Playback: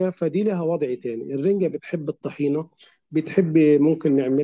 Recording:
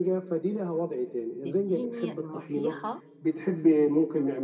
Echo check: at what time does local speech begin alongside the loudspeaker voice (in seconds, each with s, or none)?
1.4 s